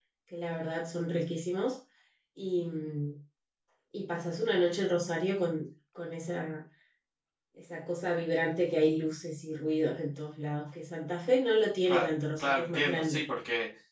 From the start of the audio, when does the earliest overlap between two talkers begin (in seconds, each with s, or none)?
11.8 s